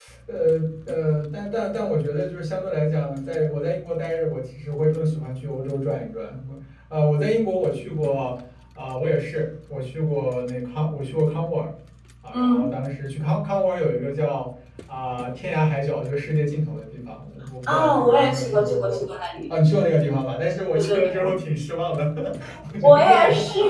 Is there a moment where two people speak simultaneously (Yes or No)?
Yes